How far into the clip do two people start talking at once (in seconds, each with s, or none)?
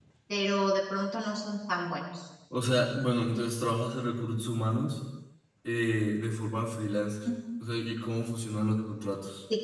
none